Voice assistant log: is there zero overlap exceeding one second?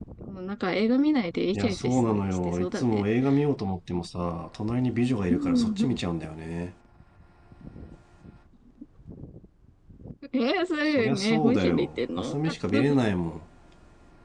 No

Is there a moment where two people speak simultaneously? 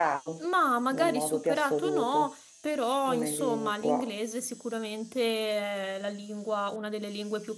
Yes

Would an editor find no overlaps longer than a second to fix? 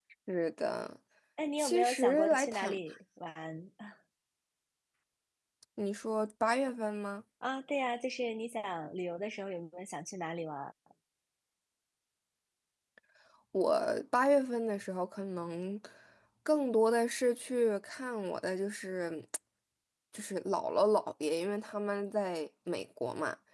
No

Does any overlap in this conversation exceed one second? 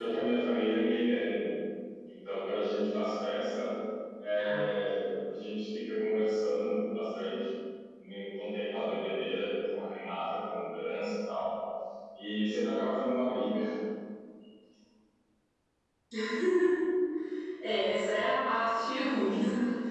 No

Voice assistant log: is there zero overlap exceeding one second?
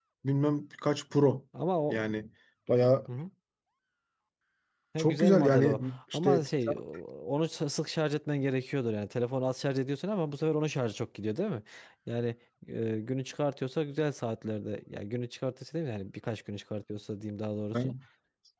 No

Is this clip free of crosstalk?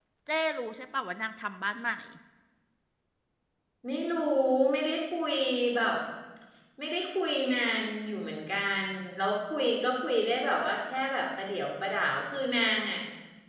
Yes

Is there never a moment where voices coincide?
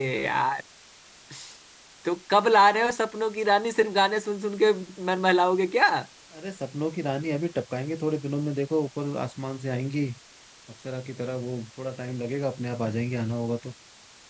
Yes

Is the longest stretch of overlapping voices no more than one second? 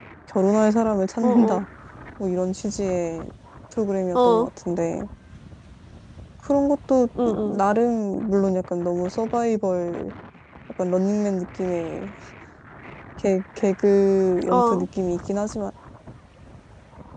Yes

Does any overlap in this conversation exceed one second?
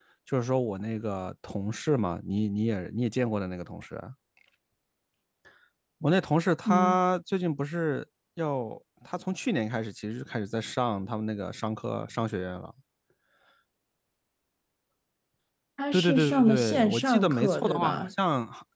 Yes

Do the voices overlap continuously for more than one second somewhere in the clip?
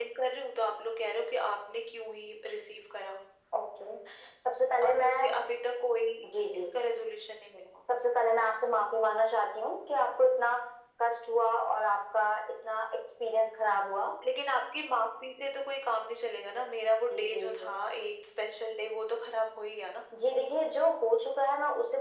No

